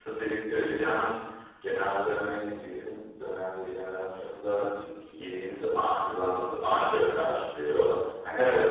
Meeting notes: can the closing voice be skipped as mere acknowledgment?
Yes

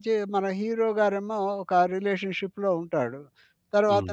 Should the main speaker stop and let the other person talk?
No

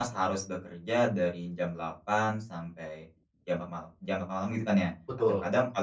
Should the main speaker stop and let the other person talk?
No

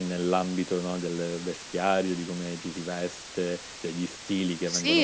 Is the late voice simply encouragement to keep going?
No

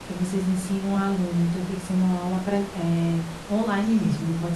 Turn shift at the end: Yes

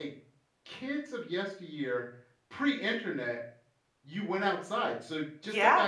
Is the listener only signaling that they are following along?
Yes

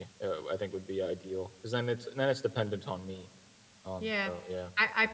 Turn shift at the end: Yes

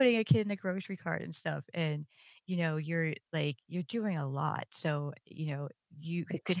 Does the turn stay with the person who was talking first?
Yes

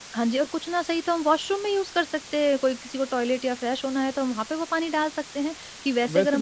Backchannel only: No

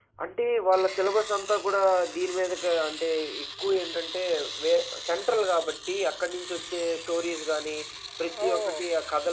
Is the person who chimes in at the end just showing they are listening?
Yes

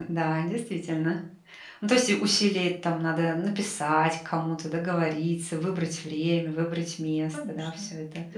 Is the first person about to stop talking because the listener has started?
Yes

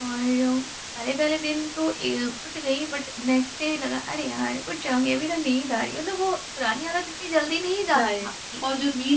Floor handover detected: Yes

